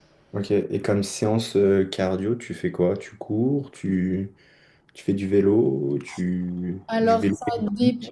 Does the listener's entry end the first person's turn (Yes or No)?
Yes